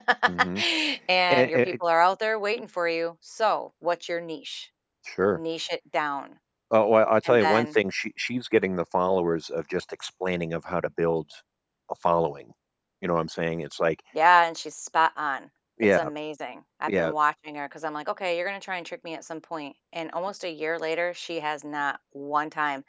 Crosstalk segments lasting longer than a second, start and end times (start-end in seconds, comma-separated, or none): none